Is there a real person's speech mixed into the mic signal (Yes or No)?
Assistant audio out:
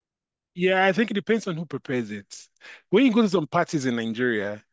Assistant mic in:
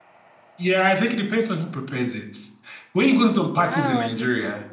Yes